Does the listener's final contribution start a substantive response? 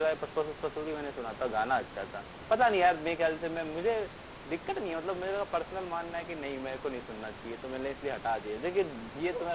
No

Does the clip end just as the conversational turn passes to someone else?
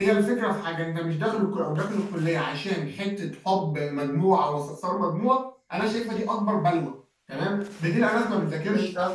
No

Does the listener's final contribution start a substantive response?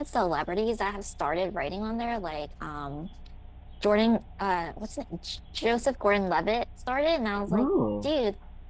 No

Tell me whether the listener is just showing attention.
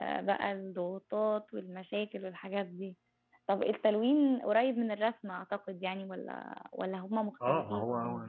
No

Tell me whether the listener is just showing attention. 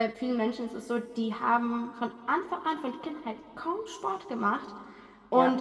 Yes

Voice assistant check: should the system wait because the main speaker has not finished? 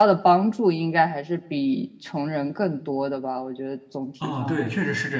No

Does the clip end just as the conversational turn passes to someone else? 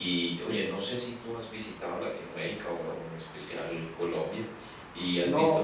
No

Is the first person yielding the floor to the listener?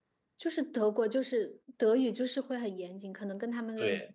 Yes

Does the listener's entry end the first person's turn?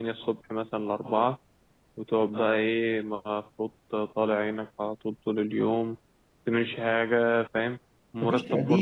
No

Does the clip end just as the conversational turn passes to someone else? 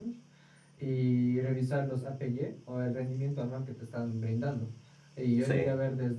No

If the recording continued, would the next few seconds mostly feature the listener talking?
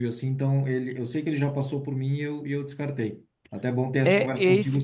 Yes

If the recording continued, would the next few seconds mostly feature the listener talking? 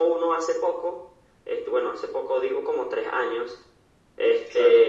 No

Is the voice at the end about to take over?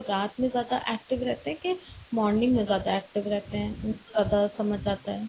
Yes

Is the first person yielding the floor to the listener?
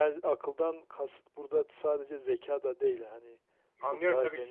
Yes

